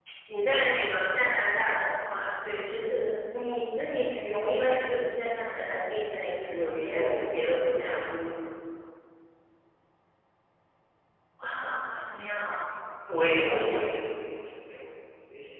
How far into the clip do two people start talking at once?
6.5 s

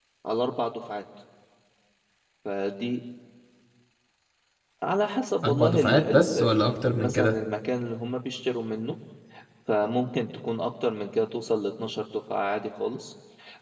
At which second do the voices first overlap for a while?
5.4 s

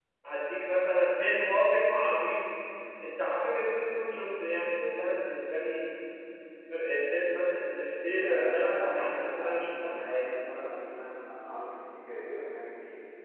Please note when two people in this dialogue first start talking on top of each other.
8.1 s

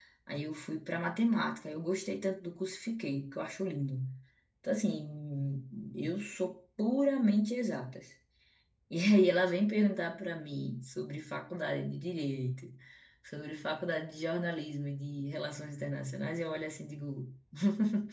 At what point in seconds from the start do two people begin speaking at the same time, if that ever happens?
none

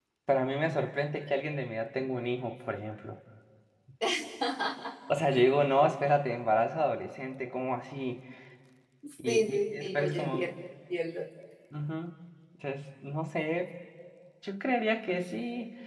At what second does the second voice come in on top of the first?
9.2 s

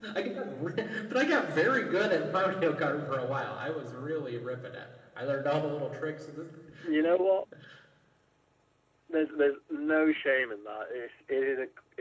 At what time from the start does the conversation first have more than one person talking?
none

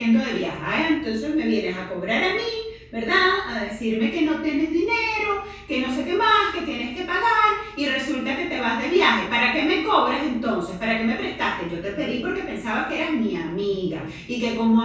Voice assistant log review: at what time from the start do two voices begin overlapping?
none

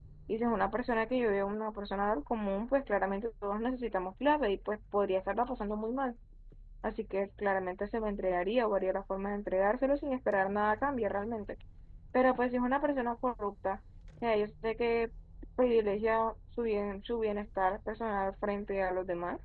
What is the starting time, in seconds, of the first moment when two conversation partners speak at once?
none

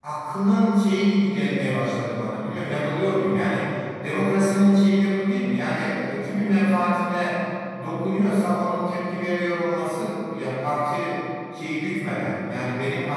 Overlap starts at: none

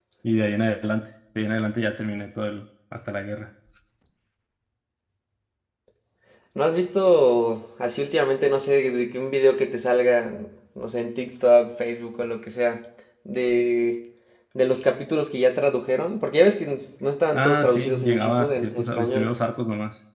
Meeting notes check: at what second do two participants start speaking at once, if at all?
17.3 s

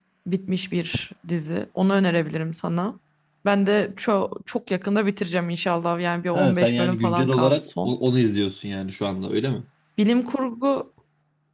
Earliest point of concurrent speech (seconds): 6.3 s

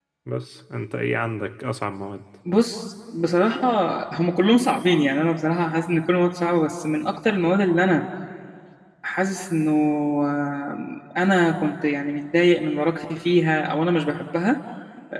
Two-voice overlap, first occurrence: none

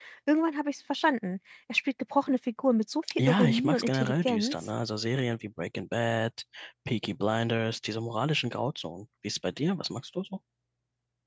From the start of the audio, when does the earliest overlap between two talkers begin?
3.0 s

